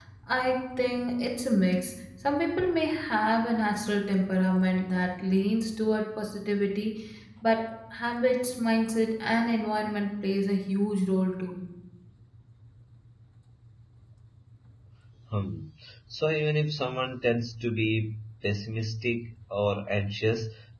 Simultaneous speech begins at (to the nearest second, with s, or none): none